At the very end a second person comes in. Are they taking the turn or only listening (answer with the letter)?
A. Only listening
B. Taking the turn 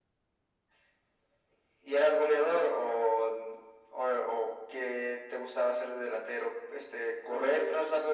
A